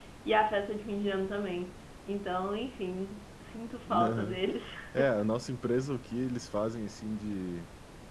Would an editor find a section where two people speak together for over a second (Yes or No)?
No